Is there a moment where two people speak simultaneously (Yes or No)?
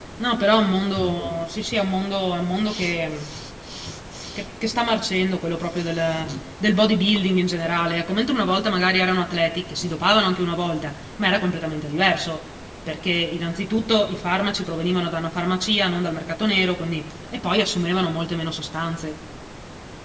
No